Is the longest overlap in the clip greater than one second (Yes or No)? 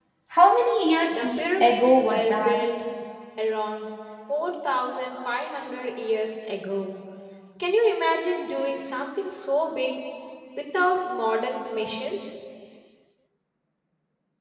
Yes